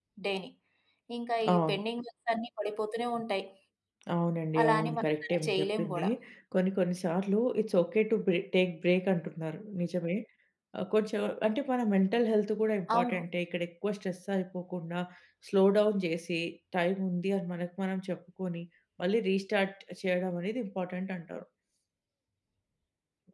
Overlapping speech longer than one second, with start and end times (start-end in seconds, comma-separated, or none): 4.6-6.1